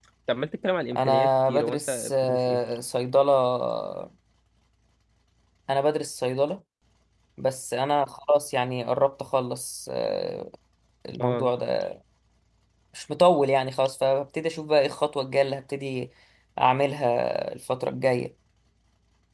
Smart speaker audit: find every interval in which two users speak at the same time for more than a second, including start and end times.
1.0-2.6

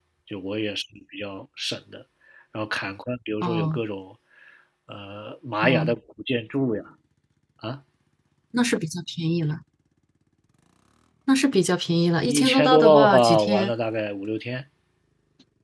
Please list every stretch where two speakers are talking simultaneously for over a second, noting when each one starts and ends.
12.3-13.7

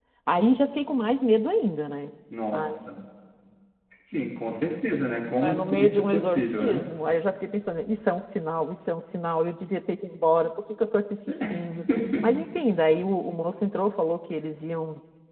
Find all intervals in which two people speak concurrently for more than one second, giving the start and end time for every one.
5.4-6.8

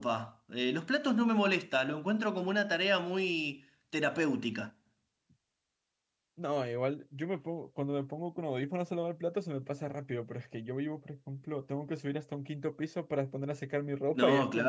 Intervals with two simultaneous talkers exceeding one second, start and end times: none

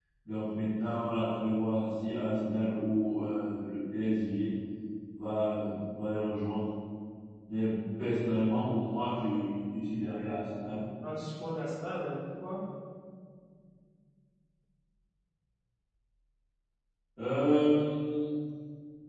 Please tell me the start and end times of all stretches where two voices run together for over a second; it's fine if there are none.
none

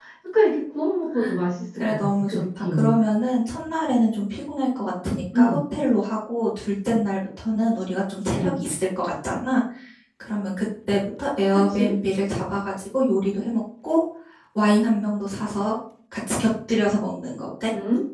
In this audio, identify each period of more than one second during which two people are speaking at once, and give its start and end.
1.8-3.0

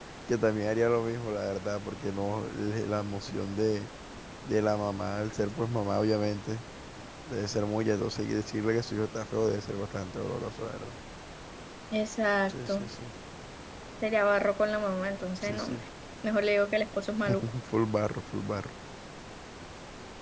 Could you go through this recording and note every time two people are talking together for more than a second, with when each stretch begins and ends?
none

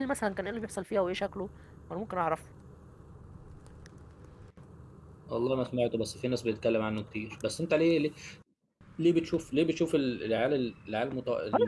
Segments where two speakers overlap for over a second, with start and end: none

